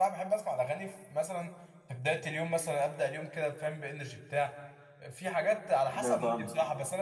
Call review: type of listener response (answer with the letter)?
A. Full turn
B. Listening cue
B